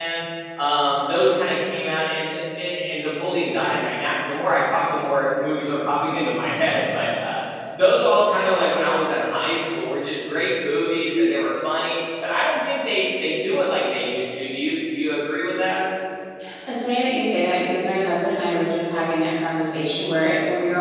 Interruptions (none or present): none